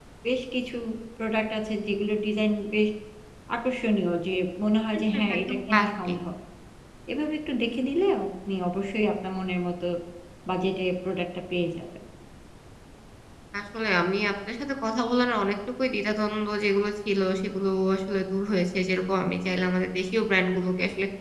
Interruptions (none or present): present